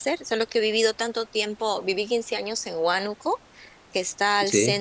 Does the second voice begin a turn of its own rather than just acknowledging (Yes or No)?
No